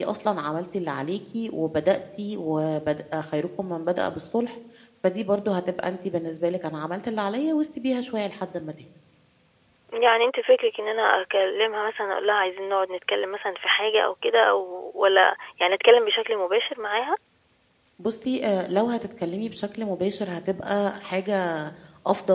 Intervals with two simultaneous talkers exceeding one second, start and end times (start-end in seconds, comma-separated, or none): none